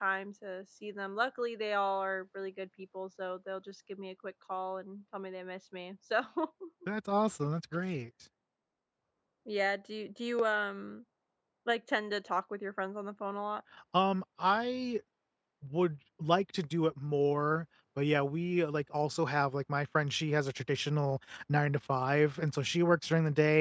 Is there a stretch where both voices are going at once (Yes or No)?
No